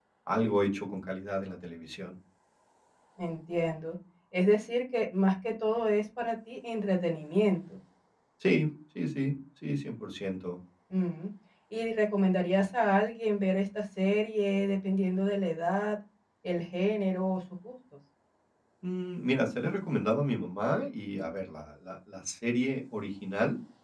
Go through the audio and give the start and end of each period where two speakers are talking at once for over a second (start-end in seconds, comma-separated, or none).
none